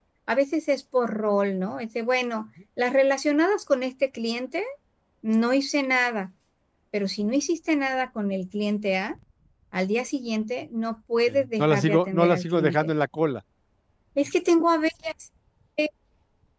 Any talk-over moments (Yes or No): Yes